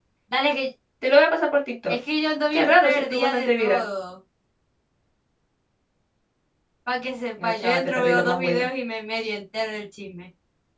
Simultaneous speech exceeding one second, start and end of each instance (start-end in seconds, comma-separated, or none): 2.5-3.9, 7.4-8.7